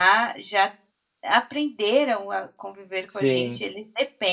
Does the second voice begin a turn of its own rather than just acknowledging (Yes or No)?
No